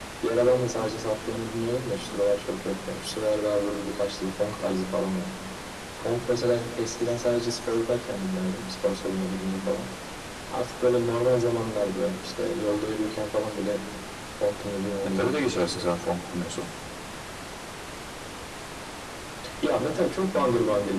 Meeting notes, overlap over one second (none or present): none